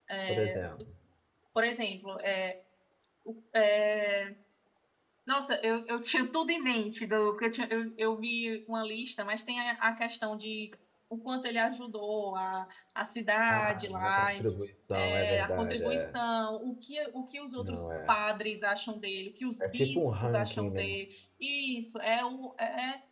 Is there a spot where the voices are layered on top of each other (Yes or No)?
Yes